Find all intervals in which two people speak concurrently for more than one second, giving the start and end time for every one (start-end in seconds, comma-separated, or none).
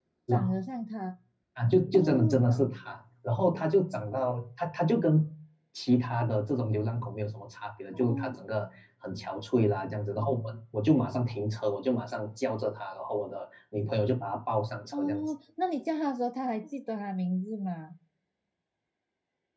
none